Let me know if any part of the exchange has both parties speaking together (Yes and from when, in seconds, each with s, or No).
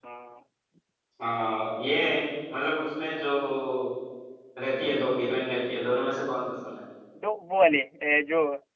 No